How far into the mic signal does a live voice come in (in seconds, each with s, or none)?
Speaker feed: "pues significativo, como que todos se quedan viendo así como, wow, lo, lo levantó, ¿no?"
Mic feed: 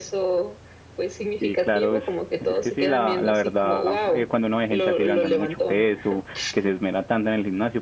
1.4 s